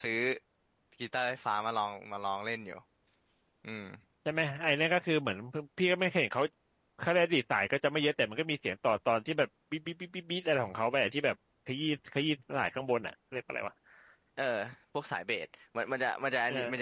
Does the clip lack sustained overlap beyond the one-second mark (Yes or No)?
Yes